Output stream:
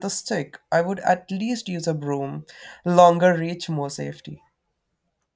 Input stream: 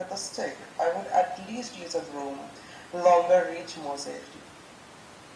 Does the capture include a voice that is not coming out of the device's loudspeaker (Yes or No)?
No